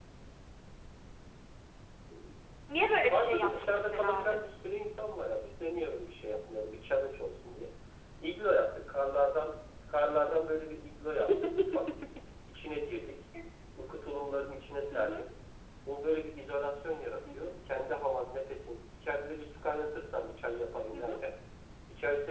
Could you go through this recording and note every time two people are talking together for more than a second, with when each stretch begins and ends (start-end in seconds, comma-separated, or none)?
3.0-4.4